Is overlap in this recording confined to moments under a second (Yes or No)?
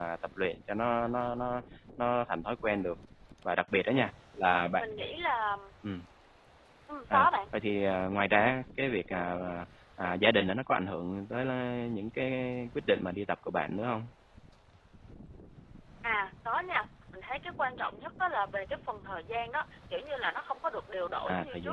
Yes